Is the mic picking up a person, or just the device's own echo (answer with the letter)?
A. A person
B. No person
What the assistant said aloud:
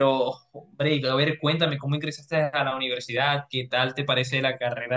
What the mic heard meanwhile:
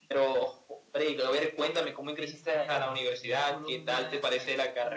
A